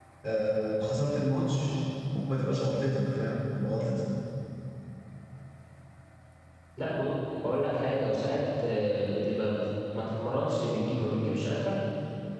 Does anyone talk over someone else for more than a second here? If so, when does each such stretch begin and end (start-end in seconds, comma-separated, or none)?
none